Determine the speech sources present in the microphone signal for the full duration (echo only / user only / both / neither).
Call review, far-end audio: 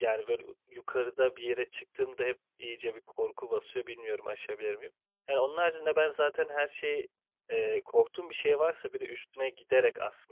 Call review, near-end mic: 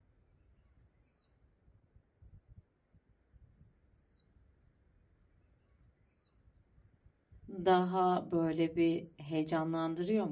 user only